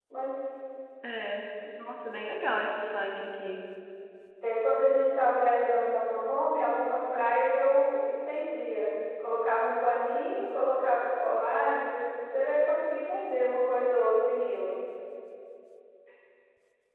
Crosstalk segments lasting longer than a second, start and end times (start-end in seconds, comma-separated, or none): none